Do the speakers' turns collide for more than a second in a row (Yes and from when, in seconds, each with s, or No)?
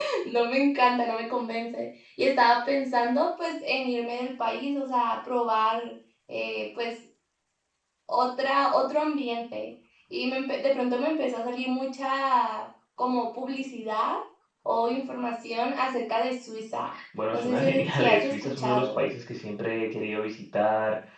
Yes, from 17.3 s